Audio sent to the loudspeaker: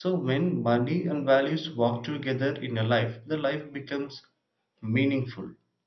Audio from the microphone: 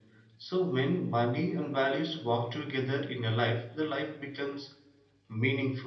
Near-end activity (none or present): none